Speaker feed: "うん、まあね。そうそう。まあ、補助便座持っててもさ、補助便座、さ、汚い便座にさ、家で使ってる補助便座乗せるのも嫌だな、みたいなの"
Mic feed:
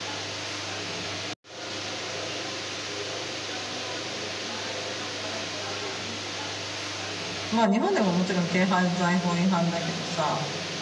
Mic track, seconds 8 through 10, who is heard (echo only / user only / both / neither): user only